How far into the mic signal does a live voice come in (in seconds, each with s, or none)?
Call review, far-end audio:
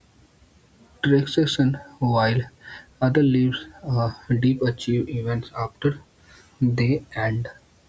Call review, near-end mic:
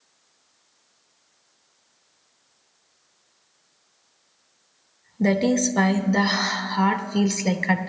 5.2 s